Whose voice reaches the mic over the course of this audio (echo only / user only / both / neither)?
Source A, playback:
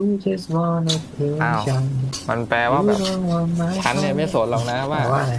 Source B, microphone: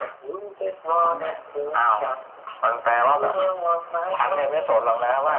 both